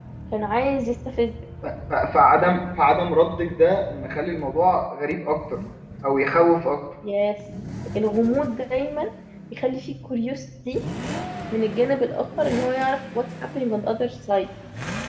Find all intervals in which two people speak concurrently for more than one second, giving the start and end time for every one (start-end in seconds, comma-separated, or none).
none